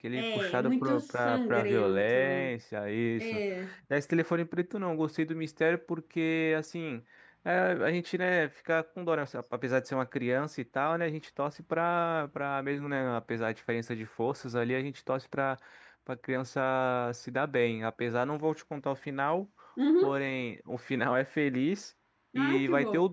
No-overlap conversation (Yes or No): No